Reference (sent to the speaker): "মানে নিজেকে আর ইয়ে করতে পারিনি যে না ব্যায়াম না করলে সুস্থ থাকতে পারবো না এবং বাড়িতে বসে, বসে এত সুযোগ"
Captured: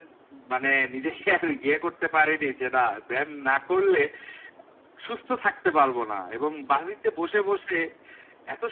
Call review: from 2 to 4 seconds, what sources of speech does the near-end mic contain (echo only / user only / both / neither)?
echo only